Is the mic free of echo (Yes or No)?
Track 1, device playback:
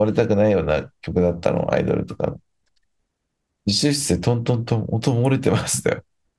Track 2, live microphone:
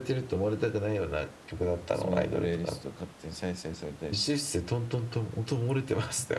No